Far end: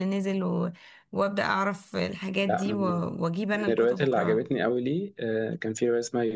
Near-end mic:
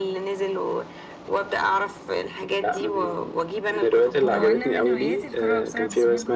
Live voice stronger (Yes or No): No